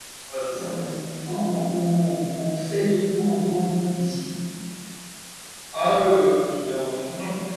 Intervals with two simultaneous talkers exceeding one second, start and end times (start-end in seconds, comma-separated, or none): none